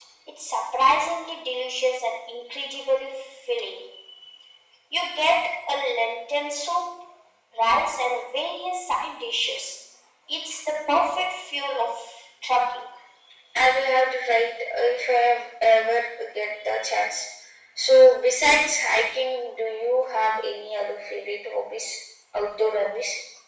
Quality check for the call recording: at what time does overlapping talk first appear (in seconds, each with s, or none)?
none